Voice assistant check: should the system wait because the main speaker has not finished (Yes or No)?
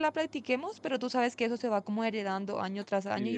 No